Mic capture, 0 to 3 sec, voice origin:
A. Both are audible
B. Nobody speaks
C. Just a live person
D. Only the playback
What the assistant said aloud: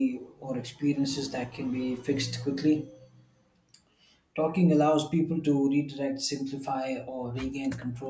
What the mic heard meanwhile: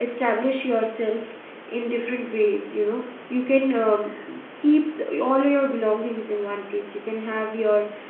C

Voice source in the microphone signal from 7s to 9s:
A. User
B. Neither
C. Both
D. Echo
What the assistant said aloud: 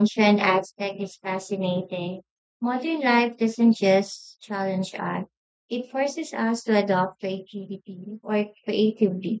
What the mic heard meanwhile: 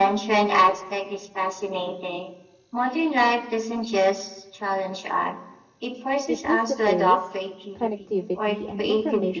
C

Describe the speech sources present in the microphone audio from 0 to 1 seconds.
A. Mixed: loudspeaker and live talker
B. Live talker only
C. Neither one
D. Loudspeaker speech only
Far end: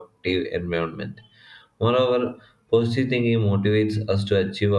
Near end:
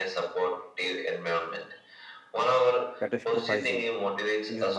D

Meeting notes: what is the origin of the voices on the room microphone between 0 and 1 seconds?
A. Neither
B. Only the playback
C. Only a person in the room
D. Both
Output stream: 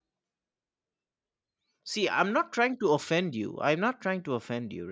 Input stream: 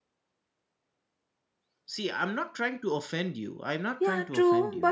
A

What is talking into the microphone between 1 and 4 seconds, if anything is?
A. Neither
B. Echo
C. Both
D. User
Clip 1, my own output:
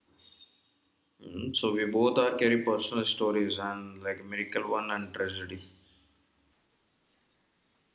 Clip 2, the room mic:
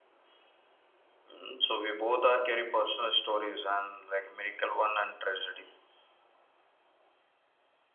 B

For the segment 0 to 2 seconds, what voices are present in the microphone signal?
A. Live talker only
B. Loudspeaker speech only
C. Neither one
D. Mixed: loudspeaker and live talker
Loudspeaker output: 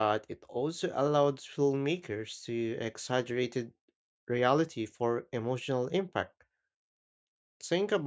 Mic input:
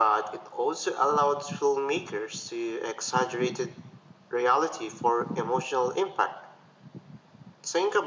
B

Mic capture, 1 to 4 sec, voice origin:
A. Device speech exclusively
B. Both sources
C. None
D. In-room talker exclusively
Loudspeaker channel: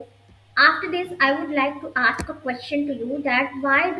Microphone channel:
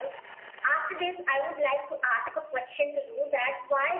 A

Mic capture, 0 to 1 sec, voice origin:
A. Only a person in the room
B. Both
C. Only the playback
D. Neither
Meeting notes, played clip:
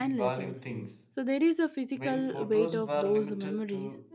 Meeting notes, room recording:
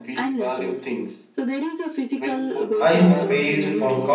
C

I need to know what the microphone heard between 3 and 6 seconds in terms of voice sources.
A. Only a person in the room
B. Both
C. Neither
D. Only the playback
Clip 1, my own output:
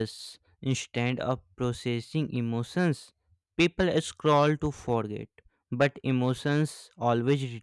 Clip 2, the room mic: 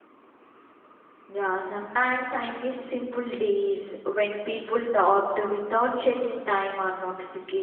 A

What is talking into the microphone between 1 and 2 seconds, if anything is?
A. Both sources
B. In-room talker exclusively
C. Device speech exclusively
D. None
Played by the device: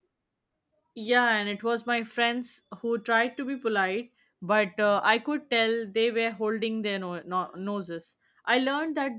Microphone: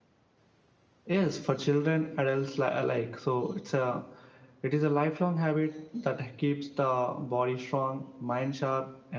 B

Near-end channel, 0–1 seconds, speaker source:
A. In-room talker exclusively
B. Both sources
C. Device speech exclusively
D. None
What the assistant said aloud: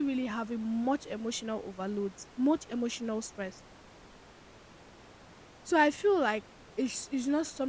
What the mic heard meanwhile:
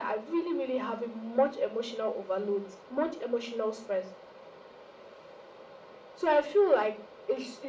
C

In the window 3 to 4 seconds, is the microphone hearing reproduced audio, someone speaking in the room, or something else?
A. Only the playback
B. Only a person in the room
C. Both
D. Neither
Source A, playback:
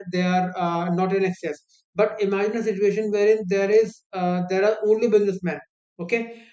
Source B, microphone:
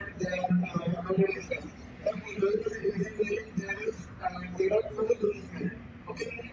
A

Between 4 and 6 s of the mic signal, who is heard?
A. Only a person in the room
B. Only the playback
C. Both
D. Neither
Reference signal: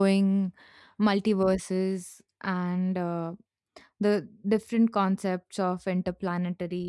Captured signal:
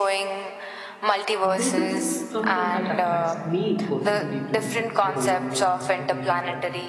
C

